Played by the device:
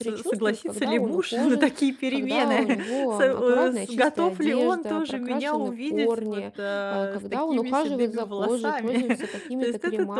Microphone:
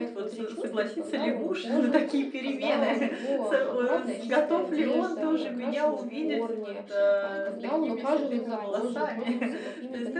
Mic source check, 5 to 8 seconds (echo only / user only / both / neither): both